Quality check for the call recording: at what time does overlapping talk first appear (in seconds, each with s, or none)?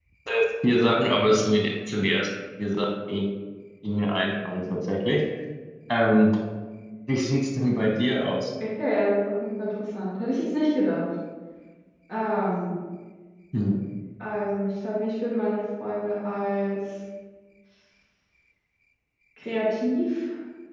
none